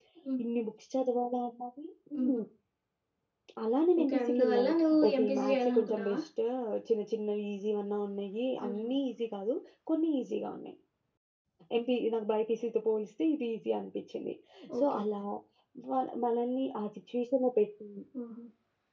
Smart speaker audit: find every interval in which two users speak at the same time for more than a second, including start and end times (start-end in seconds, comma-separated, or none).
4.0-6.2